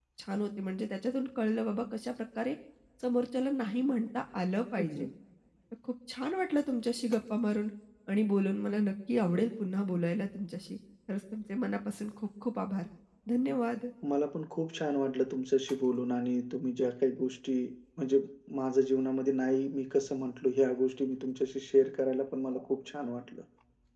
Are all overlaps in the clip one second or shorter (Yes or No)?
Yes